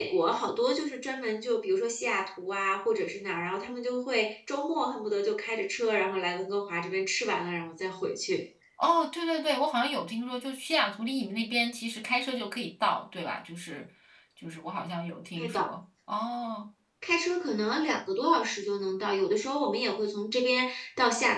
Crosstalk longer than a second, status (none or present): none